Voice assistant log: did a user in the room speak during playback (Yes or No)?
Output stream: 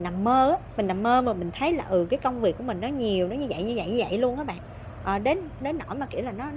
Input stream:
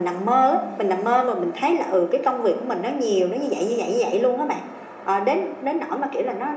Yes